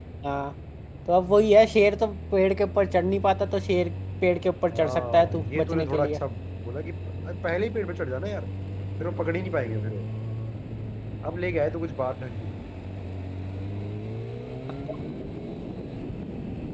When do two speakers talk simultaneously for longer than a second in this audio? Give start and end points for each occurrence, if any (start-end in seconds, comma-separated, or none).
4.8-6.2